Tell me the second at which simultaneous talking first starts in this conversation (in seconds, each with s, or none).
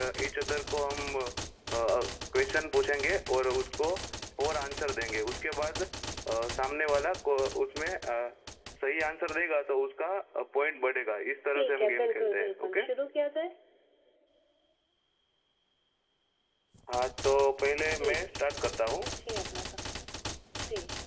11.6 s